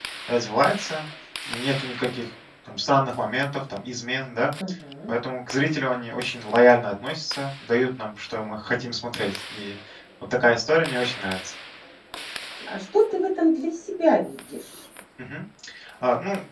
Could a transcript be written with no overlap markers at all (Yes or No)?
Yes